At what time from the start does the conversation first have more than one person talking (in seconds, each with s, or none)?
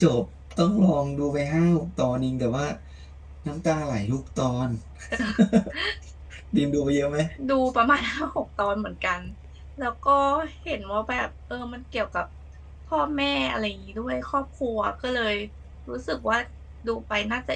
none